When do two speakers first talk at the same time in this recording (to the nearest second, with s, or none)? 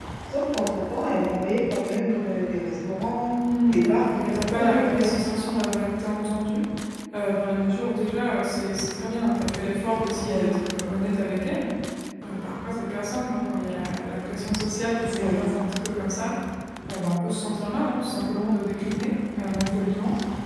4 s